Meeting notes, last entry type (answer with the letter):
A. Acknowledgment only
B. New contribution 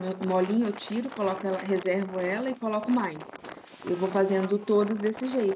A